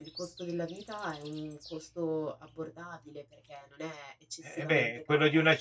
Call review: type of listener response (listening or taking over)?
taking over